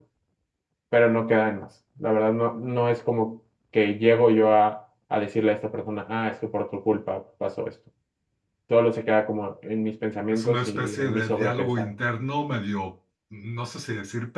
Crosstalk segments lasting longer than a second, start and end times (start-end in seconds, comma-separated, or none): 10.3-11.9